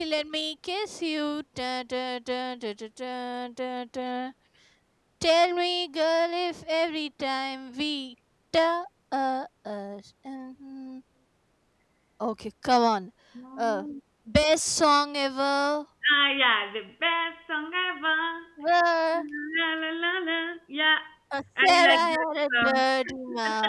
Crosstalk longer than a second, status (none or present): present